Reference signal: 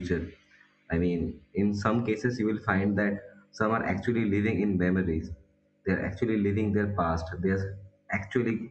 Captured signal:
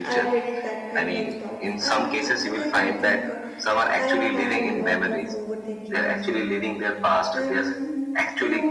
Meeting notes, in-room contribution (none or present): present